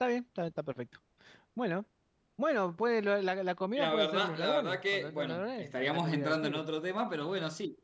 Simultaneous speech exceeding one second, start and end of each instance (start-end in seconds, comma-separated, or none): 3.8-6.6